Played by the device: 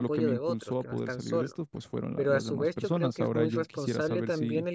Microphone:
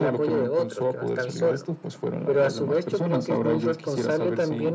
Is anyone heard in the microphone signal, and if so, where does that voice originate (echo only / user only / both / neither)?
echo only